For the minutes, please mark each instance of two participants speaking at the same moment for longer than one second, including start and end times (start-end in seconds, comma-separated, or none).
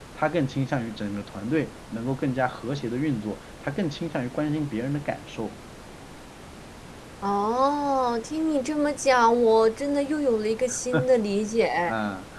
none